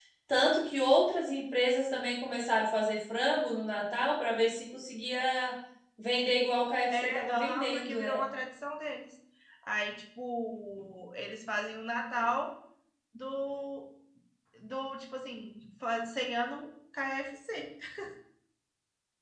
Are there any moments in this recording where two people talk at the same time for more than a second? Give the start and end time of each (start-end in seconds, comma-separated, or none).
6.9-8.2